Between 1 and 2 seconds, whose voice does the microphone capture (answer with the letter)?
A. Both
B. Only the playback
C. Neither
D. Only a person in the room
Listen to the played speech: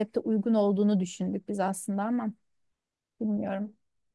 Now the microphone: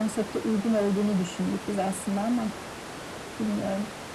B